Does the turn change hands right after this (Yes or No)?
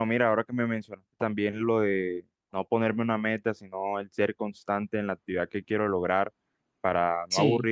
No